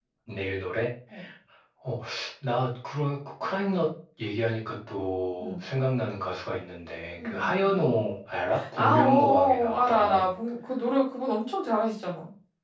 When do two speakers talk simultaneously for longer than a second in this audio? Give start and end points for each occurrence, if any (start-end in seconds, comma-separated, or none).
8.8-10.3